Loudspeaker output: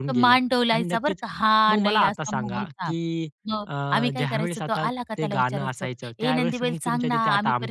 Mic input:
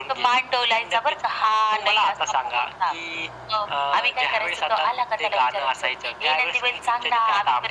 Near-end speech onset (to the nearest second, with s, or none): none